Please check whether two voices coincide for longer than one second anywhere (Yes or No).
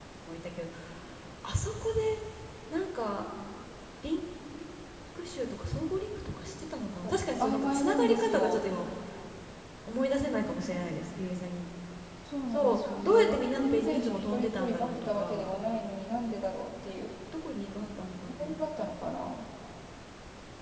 Yes